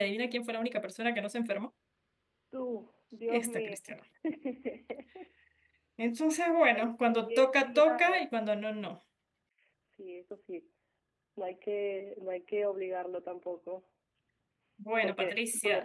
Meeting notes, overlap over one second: present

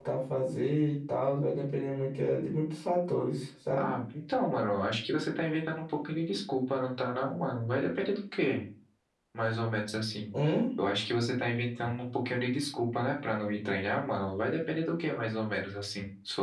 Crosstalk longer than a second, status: none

